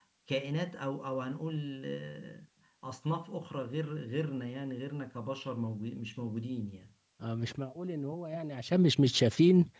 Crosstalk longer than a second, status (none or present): none